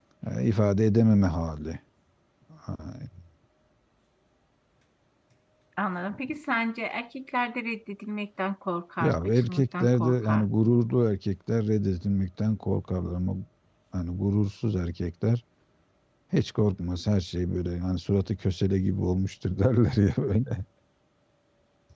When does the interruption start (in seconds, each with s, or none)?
9.0 s